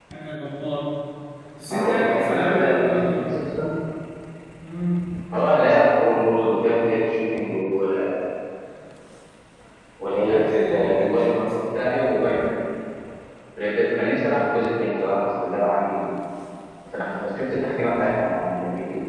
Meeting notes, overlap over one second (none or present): present